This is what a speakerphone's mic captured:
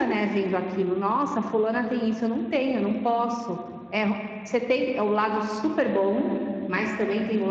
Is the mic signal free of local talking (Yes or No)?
Yes